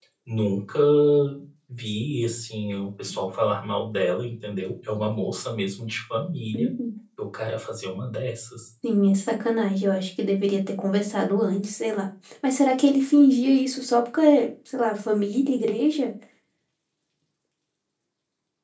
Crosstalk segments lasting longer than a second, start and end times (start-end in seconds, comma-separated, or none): none